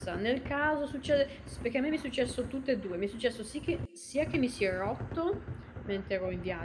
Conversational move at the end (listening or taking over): listening